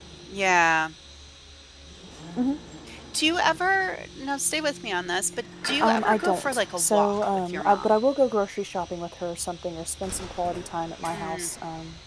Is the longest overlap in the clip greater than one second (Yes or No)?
Yes